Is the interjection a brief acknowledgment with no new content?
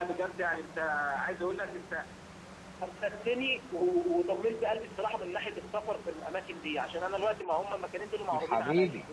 Yes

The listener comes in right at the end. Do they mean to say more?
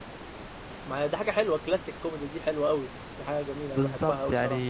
Yes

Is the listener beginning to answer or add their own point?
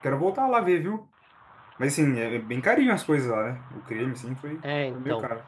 Yes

